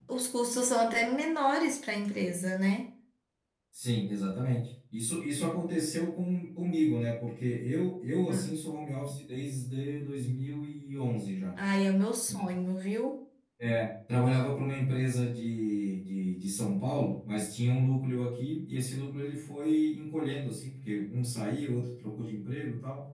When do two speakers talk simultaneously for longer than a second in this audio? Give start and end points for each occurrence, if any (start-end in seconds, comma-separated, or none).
none